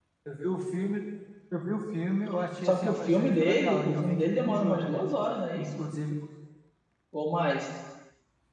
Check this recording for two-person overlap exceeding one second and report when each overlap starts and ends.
2.6-5.0

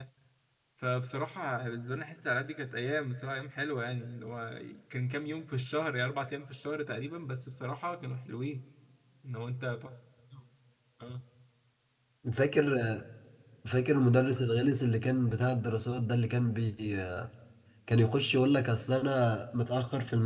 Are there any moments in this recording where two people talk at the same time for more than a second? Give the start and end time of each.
none

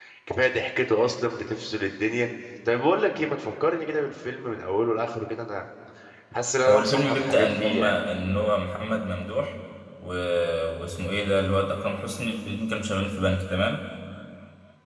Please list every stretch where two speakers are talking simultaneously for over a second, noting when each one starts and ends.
6.7-7.9

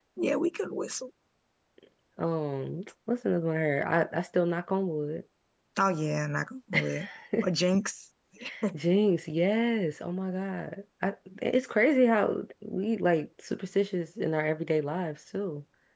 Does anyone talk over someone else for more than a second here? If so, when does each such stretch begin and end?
none

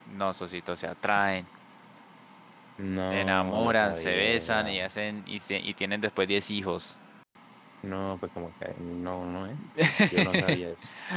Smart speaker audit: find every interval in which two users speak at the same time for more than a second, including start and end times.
3.1-4.9

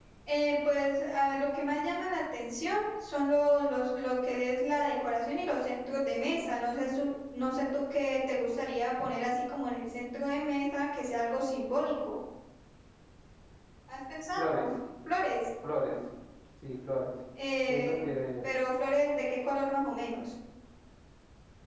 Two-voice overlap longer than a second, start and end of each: none

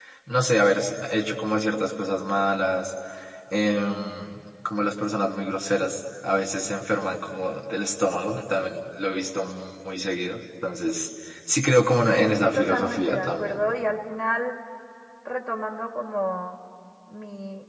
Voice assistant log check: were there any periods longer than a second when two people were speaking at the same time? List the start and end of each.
12.1-13.6

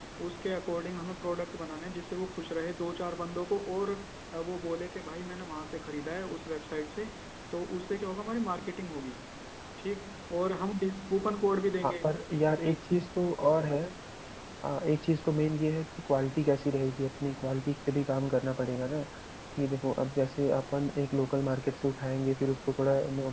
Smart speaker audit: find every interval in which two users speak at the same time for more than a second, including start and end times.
none

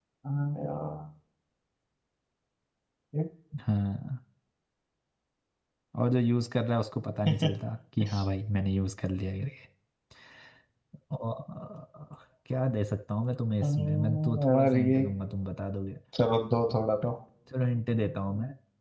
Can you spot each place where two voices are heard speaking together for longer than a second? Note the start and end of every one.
13.6-15.0

